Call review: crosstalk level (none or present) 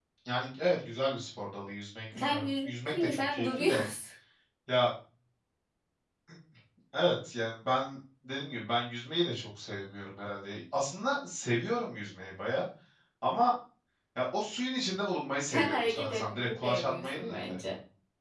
present